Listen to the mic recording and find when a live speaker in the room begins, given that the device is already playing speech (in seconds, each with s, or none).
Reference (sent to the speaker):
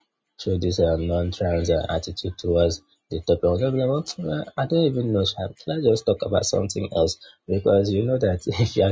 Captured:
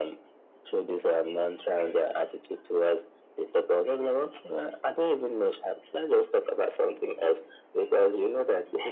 none